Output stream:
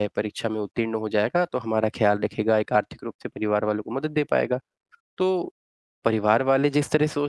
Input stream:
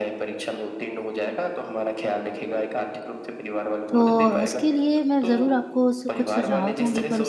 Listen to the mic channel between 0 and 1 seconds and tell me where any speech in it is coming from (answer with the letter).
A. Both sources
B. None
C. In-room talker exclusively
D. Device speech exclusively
D